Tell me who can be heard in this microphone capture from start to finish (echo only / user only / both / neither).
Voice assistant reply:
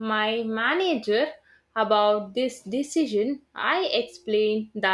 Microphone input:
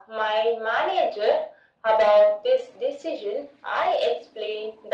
echo only